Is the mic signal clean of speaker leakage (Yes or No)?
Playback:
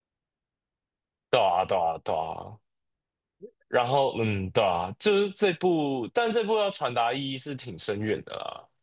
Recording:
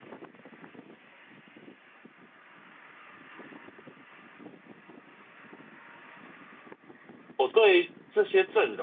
Yes